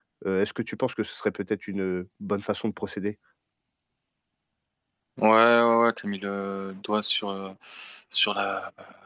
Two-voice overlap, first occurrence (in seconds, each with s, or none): none